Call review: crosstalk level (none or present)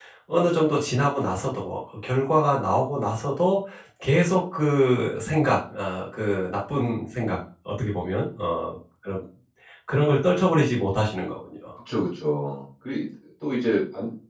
none